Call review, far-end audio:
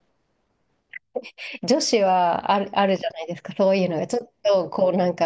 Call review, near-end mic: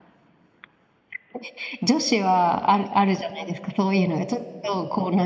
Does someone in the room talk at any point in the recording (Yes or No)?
No